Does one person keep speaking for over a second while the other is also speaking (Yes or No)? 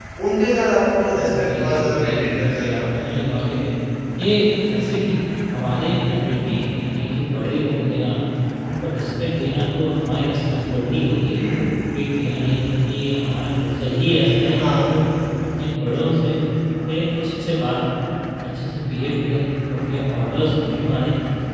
Yes